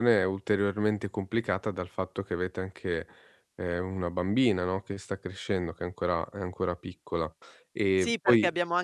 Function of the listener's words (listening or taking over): taking over